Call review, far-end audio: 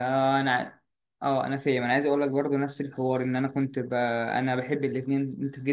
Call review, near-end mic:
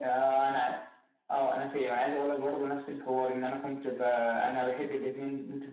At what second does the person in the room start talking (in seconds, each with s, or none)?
none